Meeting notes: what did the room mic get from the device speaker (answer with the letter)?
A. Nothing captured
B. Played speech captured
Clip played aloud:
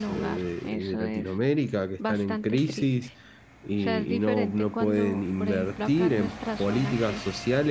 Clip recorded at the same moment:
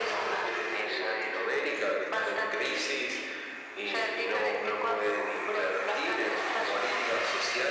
B